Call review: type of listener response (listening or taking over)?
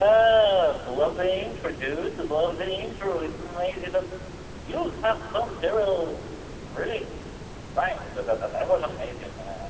listening